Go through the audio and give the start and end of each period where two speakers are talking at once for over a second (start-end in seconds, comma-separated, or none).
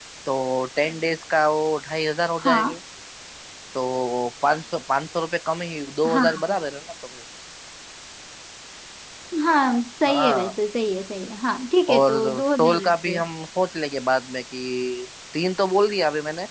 11.9-13.2